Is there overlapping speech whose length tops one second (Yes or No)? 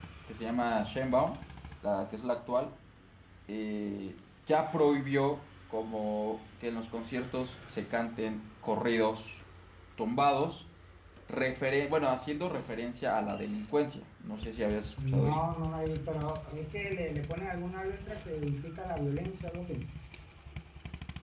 No